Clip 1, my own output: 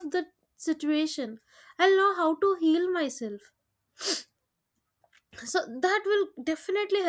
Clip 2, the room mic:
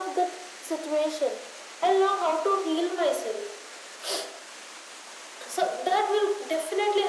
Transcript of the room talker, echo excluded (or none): none